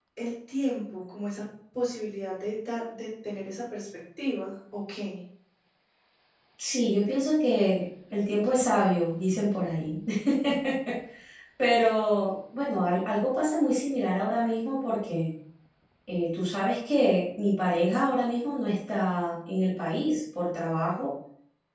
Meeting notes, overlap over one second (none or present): none